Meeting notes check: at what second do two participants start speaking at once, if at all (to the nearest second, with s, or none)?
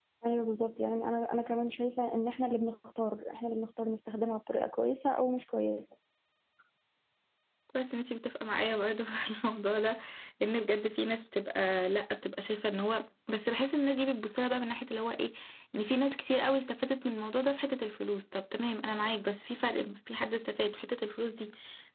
none